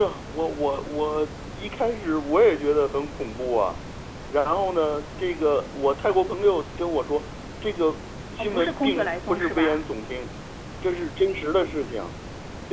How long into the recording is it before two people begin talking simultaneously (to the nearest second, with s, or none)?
8 s